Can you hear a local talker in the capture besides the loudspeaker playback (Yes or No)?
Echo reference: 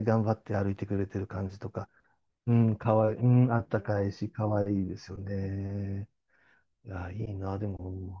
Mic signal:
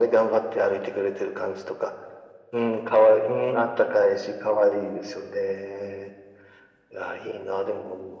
No